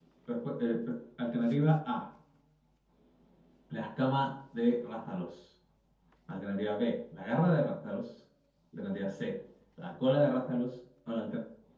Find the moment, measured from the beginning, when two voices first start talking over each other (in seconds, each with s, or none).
none